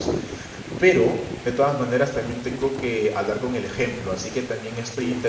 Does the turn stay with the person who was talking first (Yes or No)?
Yes